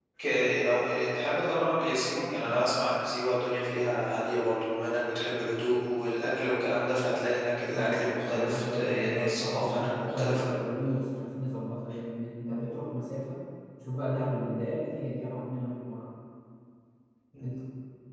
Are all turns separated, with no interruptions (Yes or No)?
No